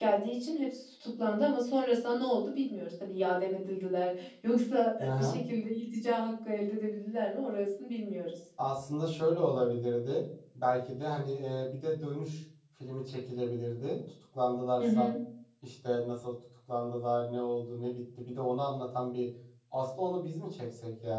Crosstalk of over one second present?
No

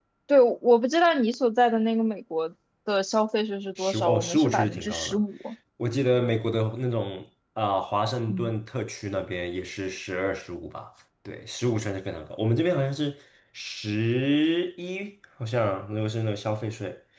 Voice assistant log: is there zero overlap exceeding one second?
No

